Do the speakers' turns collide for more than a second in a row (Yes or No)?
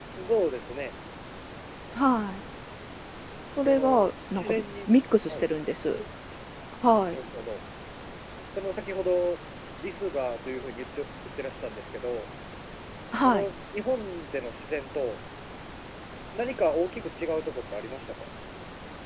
Yes